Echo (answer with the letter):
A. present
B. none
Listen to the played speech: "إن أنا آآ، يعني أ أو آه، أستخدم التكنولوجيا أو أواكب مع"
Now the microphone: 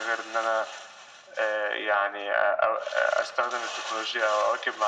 A